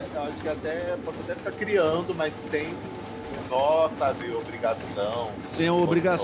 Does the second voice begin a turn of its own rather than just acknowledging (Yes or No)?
Yes